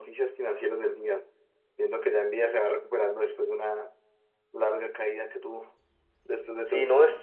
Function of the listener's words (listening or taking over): taking over